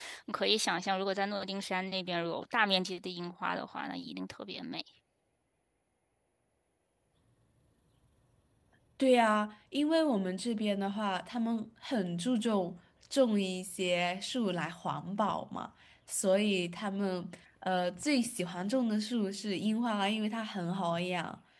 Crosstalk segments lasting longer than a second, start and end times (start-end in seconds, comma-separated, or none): none